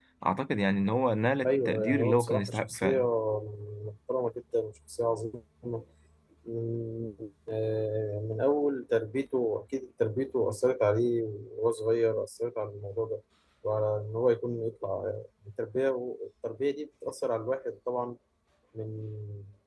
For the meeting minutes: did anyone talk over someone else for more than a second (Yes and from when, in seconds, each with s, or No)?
Yes, from 1.4 s